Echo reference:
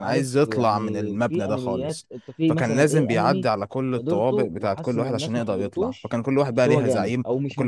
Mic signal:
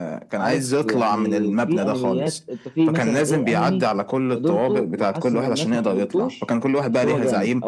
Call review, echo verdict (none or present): present